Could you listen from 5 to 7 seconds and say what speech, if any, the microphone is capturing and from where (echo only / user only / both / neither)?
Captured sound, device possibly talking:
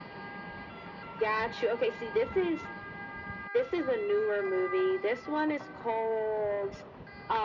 echo only